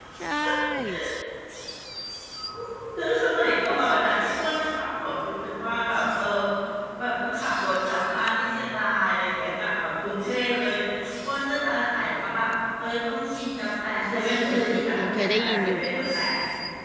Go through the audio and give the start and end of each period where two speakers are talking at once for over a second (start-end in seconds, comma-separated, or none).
14.2-15.8